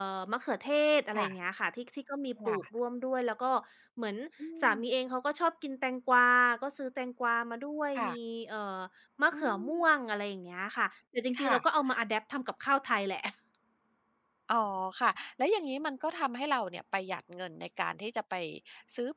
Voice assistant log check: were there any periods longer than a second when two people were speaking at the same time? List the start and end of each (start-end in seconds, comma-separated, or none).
none